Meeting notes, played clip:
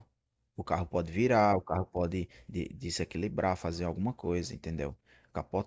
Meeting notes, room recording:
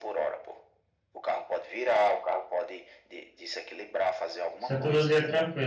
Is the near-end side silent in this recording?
No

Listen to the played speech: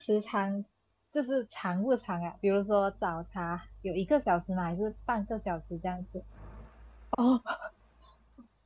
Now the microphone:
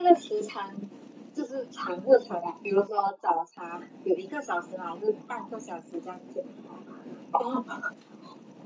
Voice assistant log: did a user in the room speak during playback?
No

